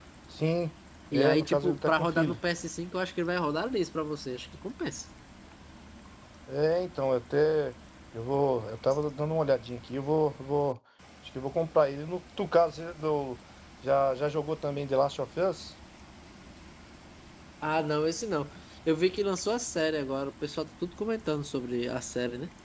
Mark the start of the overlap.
1.1 s

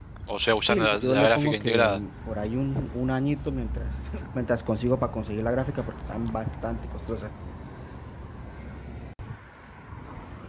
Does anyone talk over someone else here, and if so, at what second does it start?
0.6 s

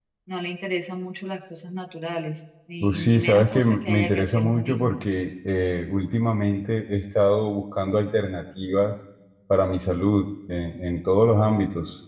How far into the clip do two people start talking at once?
2.8 s

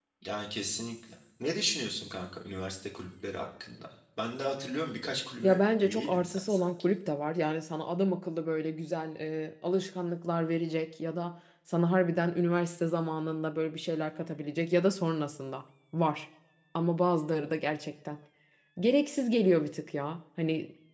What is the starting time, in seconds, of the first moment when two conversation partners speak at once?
5.4 s

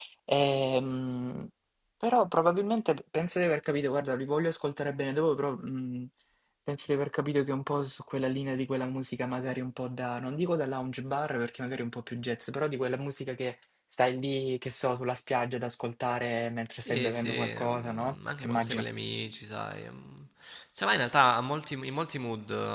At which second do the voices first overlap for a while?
16.8 s

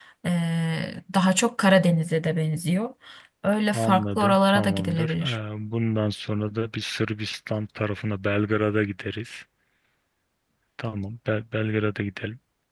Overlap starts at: 3.7 s

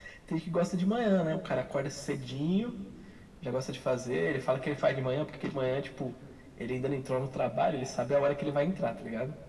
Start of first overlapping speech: none

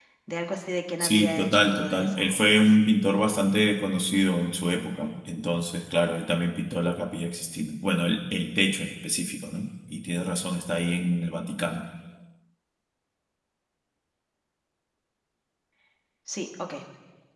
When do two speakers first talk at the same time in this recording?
1.0 s

